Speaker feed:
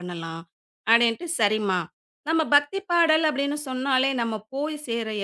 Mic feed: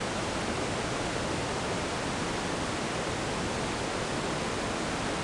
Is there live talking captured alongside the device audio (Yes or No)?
No